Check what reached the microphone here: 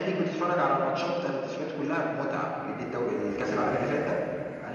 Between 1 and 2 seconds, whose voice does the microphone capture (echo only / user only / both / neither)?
echo only